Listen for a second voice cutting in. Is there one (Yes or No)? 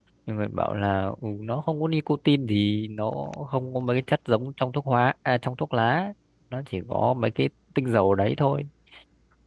No